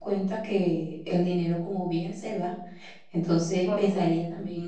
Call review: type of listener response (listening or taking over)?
listening